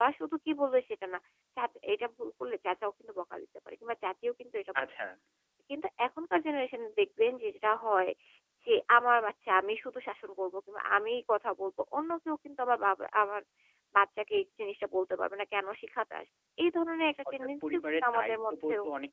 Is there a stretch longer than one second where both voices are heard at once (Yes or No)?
Yes